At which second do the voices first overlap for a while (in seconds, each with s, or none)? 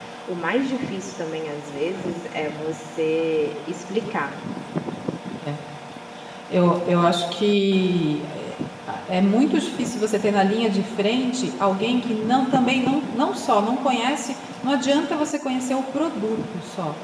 none